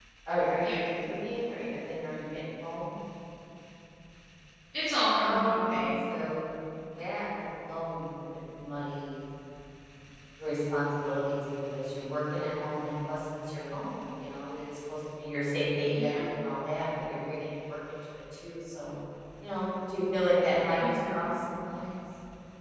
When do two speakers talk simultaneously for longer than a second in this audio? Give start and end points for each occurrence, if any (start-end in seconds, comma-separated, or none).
none